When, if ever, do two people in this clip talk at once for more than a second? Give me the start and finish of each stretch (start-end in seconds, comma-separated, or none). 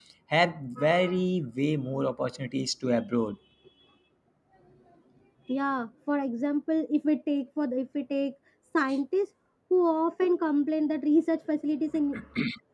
none